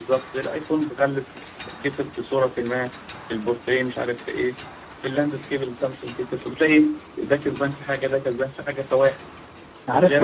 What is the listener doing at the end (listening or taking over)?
taking over